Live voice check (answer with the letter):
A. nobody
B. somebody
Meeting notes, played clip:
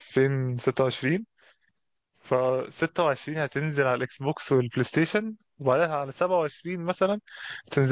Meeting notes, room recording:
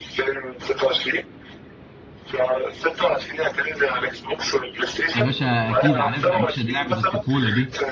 B